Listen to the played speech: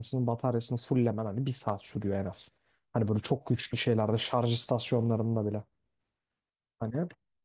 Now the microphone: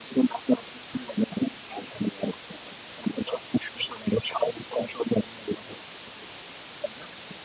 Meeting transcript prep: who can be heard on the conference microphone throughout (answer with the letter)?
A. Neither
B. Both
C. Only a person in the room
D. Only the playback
D